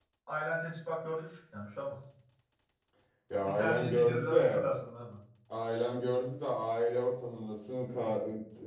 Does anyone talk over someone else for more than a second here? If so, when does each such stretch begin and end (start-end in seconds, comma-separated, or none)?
3.4-4.6